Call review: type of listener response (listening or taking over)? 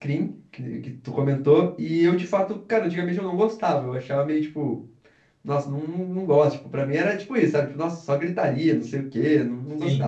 listening